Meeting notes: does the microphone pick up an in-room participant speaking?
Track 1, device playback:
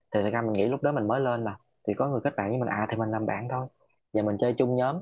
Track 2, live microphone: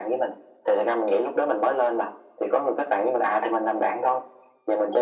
No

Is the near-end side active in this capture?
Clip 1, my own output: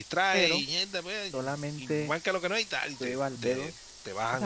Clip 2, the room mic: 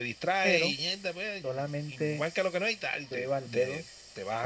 No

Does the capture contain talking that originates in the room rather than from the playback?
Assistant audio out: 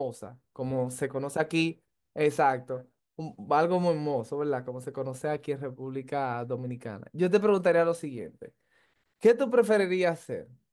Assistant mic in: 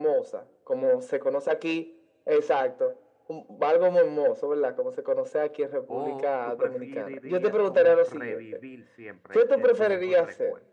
Yes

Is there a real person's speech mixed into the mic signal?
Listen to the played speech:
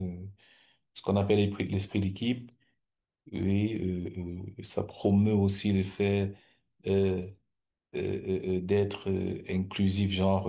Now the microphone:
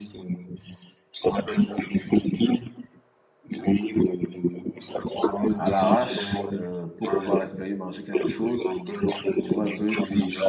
Yes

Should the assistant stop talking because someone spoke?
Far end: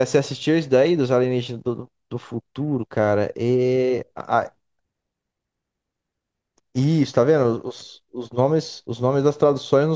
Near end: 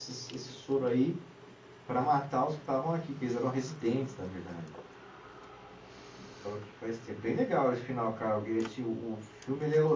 Yes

